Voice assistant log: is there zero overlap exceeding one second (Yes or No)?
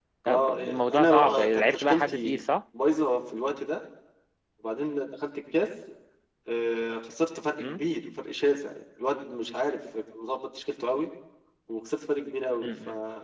No